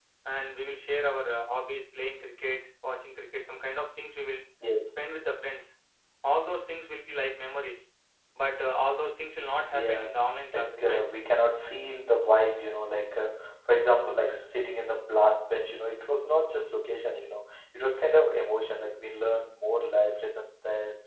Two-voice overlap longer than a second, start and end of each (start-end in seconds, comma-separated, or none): 9.7-11.0